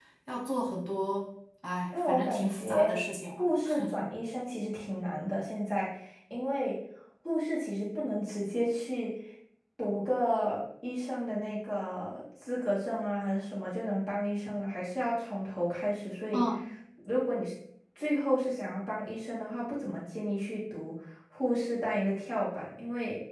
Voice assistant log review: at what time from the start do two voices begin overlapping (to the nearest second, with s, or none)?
2 s